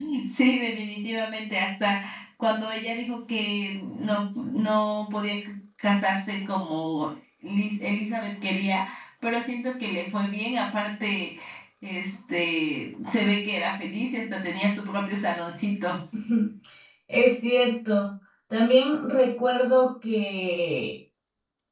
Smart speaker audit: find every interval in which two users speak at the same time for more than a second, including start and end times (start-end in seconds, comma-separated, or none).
none